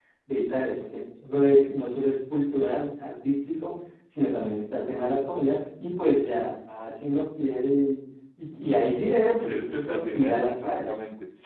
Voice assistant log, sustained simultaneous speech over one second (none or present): present